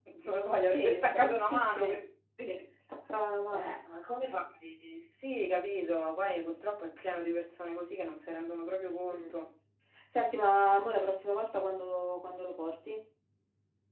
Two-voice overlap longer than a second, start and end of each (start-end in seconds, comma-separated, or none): 0.7-2.0